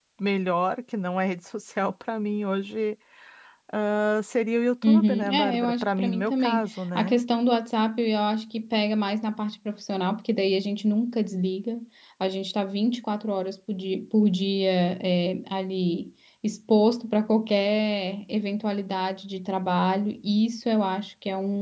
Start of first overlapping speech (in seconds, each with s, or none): 4.8 s